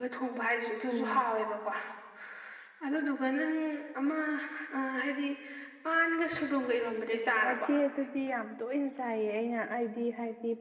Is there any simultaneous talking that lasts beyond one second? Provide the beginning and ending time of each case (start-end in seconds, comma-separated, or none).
none